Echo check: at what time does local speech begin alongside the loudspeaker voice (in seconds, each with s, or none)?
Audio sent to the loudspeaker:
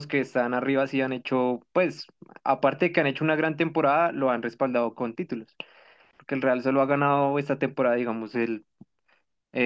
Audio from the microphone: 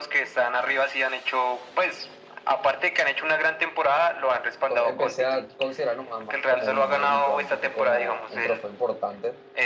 4.7 s